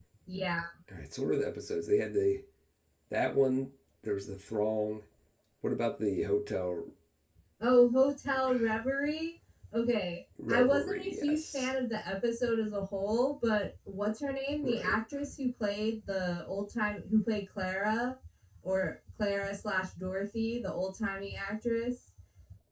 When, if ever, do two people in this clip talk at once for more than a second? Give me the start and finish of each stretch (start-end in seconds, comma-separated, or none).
10.5-11.8